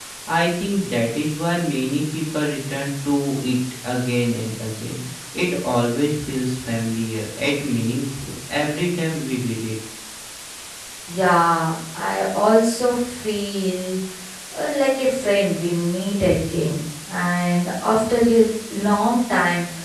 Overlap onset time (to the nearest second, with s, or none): none